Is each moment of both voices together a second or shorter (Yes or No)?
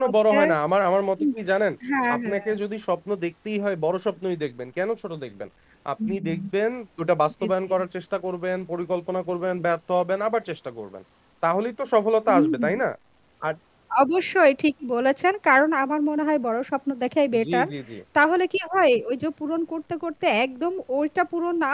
Yes